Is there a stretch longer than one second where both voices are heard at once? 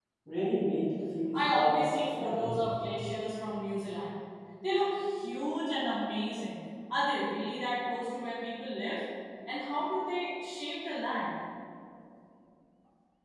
Yes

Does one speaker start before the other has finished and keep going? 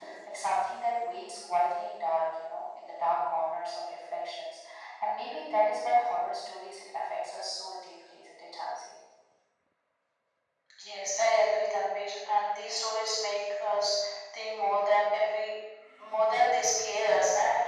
No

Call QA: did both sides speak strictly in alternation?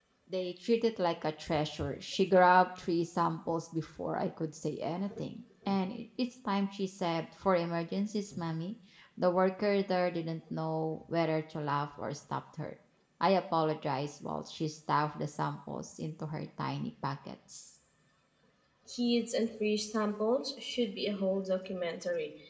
Yes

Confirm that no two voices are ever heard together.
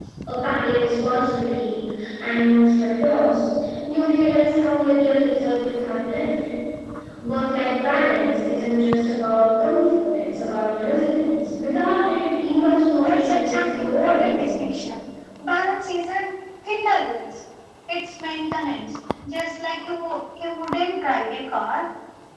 No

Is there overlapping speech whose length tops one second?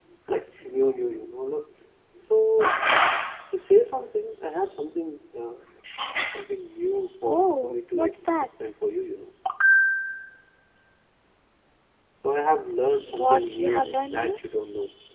Yes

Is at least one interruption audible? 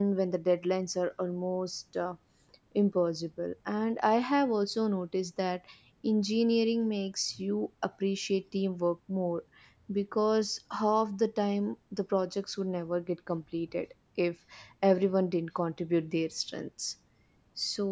No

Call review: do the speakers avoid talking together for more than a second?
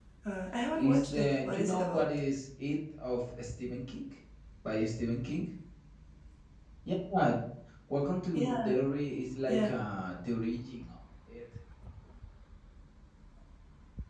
No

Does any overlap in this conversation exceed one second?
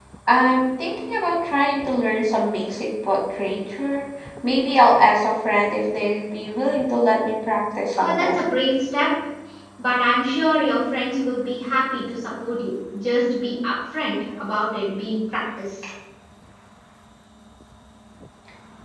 No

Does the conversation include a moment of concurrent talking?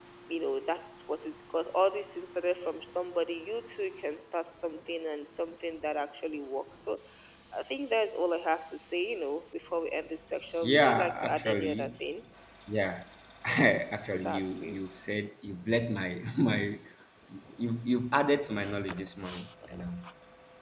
Yes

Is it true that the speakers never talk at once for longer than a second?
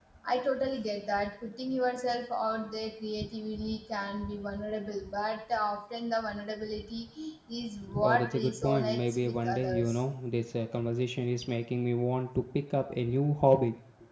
No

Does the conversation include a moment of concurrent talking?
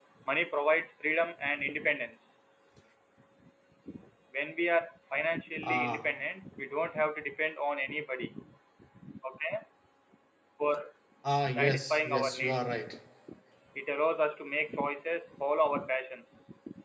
Yes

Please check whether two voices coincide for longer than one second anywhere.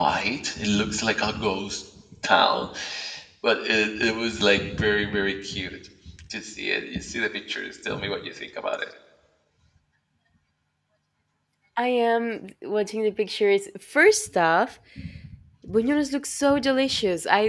No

